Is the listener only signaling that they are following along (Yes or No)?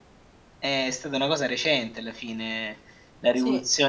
Yes